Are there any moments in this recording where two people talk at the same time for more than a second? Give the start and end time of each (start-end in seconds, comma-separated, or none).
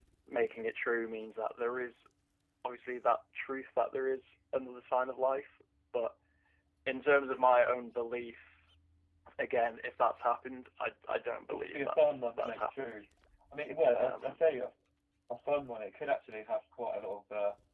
11.5-13.1